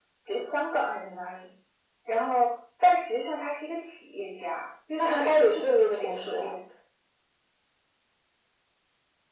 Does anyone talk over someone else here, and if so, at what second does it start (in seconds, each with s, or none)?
5.0 s